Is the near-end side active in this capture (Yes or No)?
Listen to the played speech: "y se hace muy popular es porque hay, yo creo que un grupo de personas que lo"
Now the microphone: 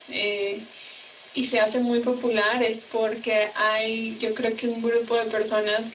No